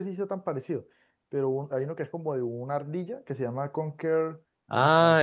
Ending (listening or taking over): taking over